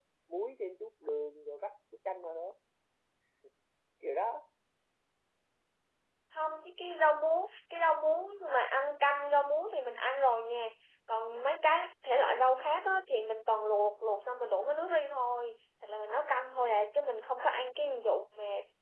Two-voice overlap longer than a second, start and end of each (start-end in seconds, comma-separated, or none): none